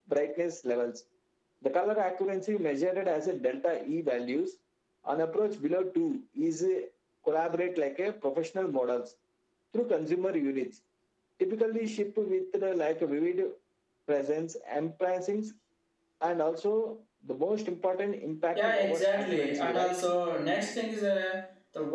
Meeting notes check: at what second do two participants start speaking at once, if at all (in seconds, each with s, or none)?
18.6 s